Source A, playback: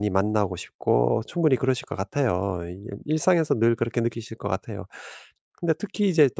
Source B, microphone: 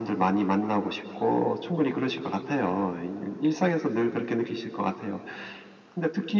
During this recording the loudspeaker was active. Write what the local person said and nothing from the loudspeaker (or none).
none